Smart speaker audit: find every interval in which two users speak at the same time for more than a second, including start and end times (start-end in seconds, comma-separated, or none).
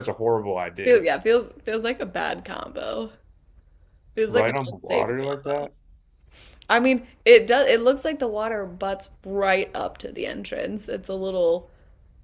4.3-5.7